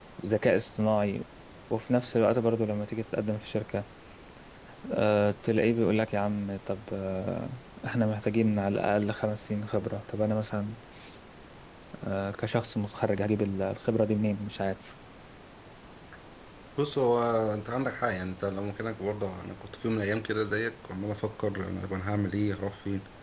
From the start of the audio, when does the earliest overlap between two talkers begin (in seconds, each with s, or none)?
none